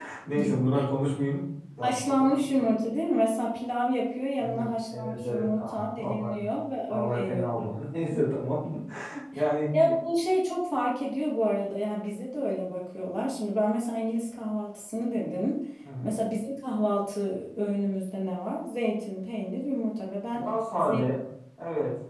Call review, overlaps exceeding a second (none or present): present